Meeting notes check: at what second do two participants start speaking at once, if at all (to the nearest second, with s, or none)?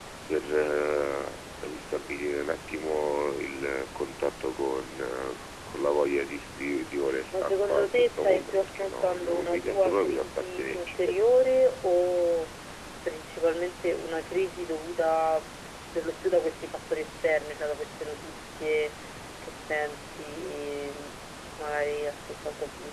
7 s